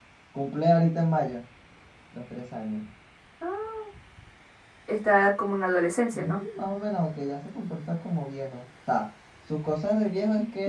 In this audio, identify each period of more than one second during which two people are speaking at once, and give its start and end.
none

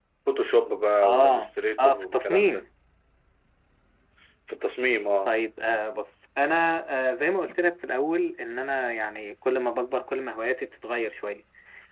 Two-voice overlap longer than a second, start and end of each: 1.0-2.6

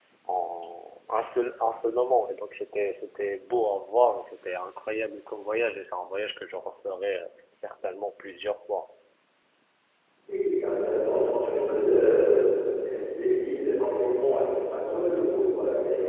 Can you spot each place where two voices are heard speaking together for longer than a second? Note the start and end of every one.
none

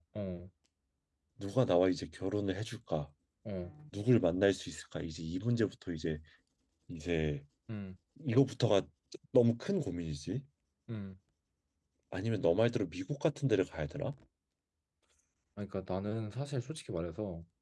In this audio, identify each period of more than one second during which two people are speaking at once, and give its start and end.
none

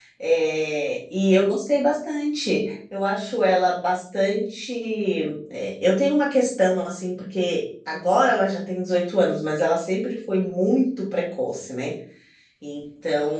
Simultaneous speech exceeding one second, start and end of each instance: none

